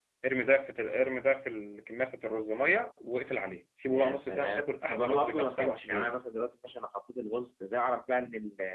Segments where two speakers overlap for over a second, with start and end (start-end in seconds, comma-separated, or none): 3.9-6.2